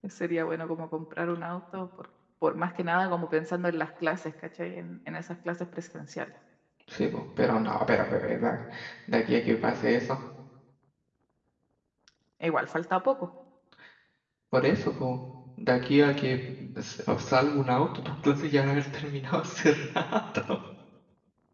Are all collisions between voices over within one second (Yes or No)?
Yes